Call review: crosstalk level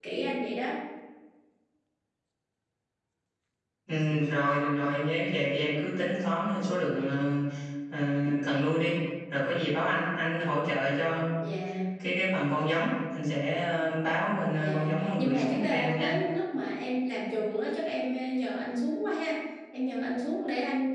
present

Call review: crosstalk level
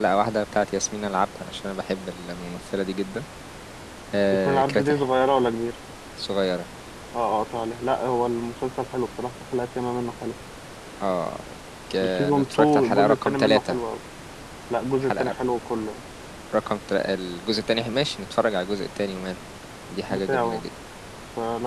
present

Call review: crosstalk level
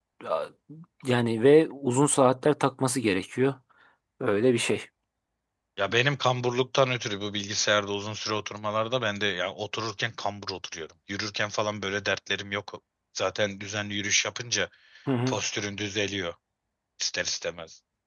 none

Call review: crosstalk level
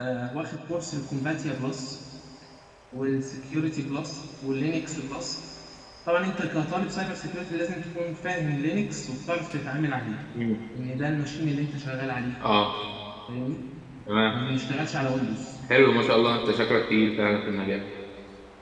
none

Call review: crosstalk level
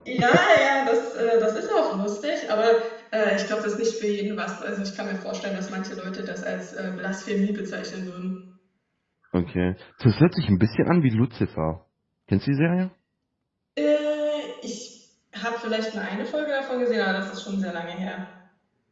none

